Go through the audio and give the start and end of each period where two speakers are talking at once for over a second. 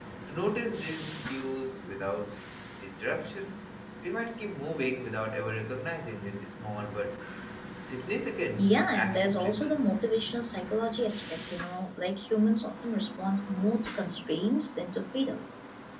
8.6-9.8

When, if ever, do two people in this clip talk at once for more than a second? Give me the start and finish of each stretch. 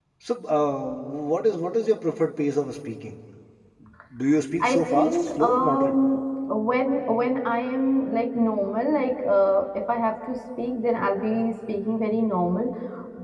4.6-5.9

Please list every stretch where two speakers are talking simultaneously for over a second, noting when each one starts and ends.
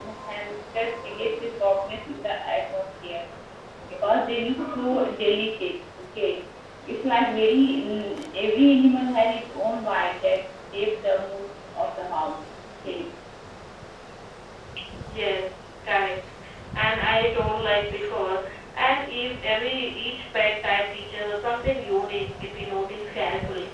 none

